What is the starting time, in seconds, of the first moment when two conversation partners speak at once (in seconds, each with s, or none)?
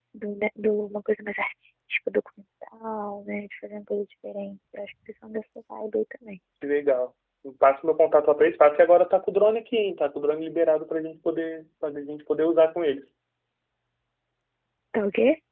none